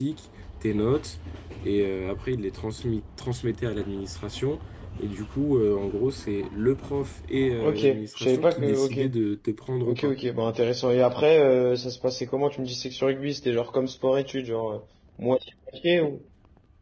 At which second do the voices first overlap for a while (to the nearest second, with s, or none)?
8 s